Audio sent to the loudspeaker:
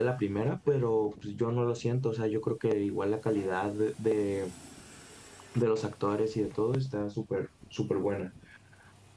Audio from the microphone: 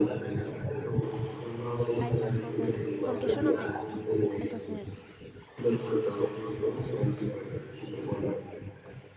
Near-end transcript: a esas cosas, porque yo no tengo. Entonces,

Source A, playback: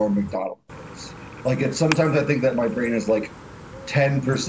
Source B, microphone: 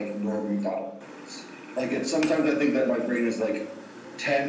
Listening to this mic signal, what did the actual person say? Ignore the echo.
none

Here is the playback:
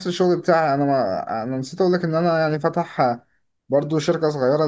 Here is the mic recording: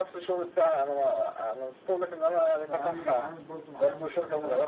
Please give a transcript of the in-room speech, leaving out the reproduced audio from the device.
فيعني بتعامل برضو معاهم وكده

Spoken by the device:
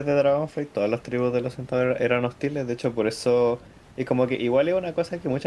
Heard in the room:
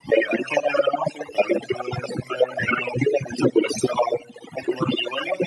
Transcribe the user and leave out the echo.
none

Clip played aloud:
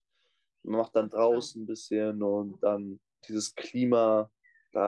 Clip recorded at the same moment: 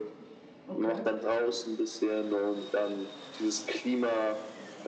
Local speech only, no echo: okay.

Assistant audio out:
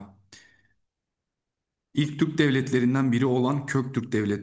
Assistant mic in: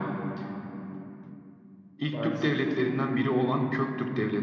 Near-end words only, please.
Maalesef.

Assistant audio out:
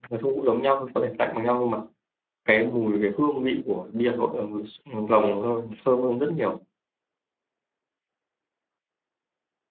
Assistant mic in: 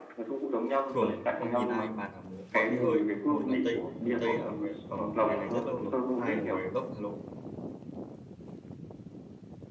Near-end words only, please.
thường ông nhìn ai bàn là gọi bia hơi một là Tây người Tây đã ở về, ở ngoài này rất lâu rồi hai là người gốc Hà Nội

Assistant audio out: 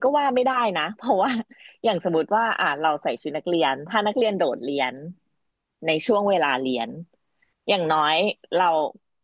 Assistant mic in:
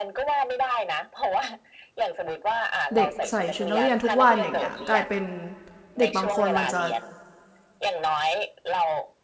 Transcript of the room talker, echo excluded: เด็กใส่ชุดนักเรียนทุกวันอย่างเงี้ยกลายเป็นเด็กบางคนมันจะ

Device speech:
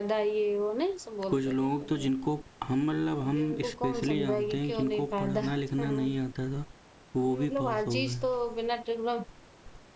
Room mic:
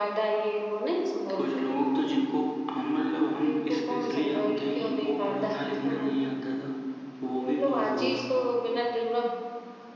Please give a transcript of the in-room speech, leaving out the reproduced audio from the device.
none

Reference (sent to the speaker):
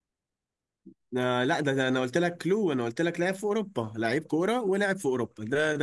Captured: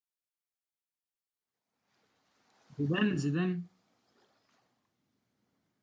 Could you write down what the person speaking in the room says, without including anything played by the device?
زيدان زيدان

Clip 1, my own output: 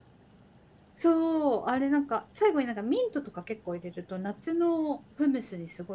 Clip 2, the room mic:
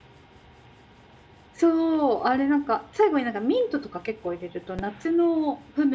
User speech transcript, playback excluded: none

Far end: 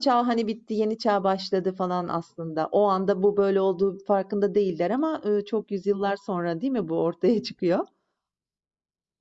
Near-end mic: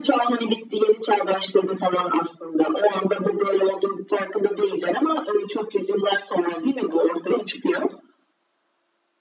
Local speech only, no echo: none

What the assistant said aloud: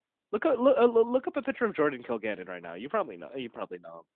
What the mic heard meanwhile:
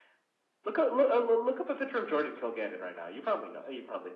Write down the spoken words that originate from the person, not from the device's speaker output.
none

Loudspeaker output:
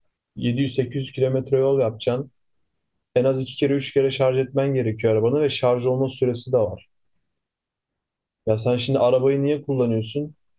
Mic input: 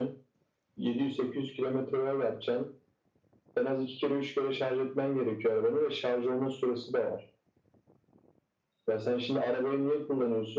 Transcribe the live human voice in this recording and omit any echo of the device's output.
none

